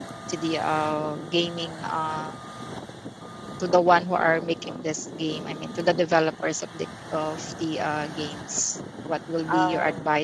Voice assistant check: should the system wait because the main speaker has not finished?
Yes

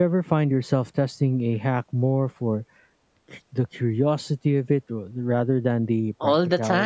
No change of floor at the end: No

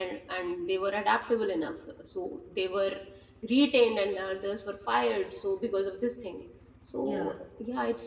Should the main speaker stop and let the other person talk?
No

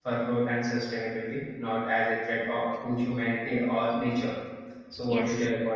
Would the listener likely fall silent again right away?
No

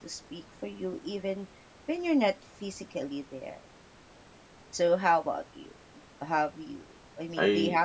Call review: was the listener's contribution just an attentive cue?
No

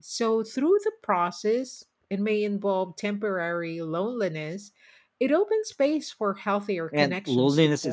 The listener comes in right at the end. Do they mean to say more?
Yes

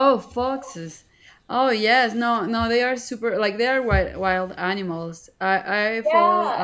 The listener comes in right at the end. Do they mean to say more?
Yes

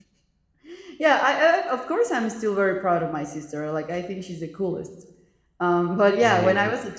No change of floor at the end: Yes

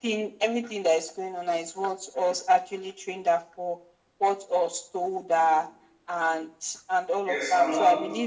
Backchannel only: No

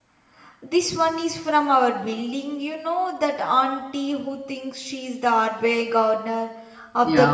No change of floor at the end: No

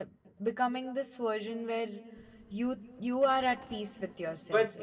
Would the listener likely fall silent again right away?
No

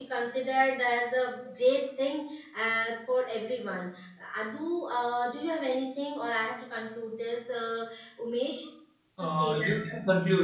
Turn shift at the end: Yes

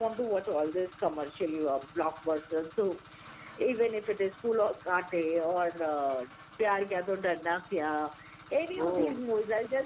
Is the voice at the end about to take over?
No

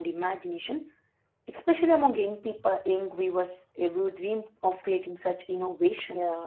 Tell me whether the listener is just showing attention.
No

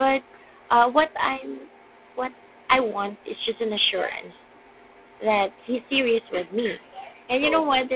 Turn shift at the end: No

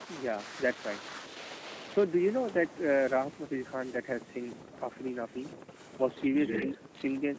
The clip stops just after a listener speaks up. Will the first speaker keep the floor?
Yes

